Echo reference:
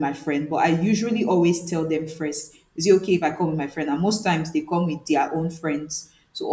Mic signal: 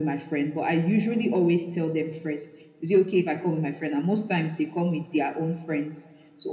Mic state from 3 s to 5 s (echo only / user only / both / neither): echo only